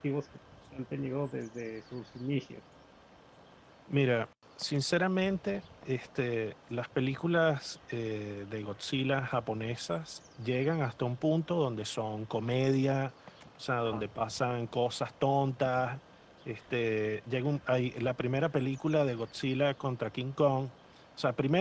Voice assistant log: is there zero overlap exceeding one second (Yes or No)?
Yes